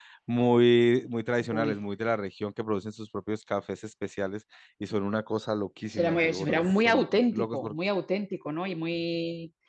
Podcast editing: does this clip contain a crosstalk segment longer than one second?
Yes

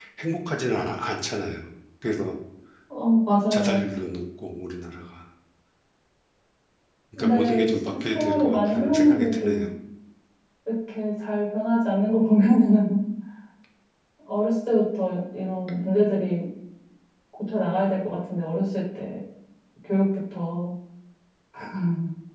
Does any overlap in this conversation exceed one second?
Yes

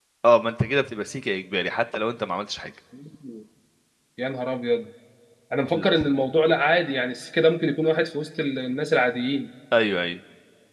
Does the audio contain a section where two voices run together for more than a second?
No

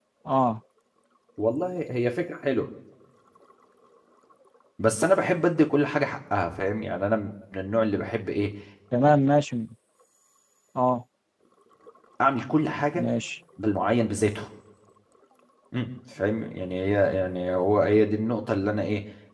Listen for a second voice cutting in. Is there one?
No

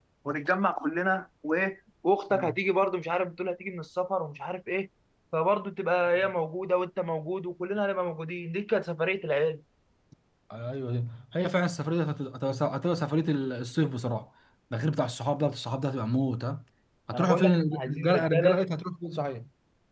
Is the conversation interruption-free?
No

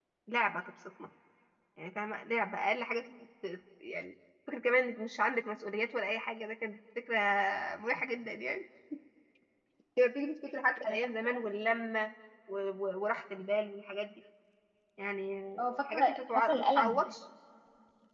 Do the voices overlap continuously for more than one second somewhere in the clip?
Yes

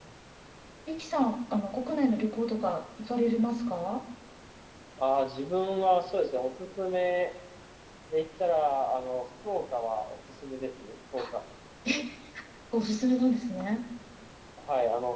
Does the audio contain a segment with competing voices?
No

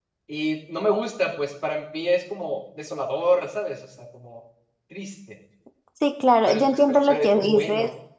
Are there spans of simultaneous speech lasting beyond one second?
Yes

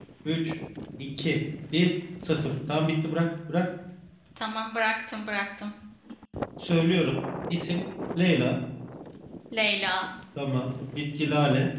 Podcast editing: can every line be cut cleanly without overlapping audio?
Yes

